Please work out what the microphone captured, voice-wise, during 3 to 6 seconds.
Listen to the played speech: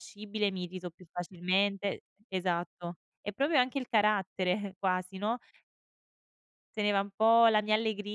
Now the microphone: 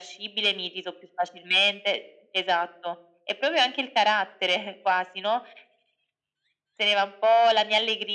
echo only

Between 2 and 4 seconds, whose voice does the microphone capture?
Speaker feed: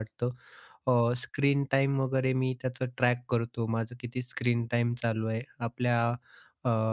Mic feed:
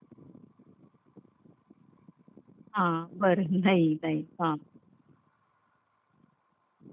user only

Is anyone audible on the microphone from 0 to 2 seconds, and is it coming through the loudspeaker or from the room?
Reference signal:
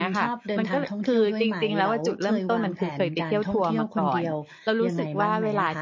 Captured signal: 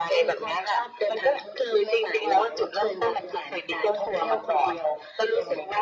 echo only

